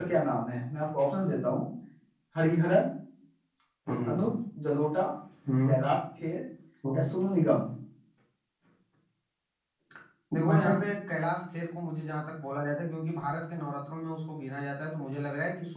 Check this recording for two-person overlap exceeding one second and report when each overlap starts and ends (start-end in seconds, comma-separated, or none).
none